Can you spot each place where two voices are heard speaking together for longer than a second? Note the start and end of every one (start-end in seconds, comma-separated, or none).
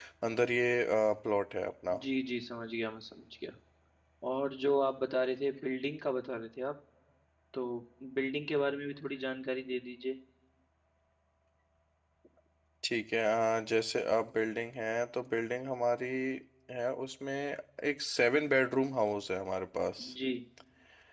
none